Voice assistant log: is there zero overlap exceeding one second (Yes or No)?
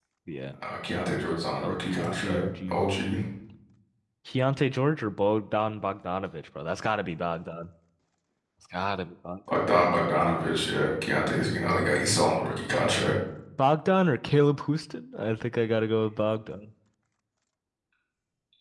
No